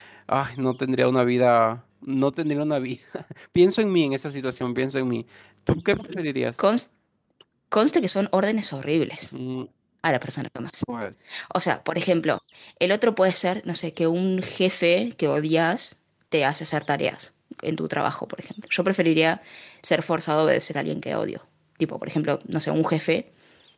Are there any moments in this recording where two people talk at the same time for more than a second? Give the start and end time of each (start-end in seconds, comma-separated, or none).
none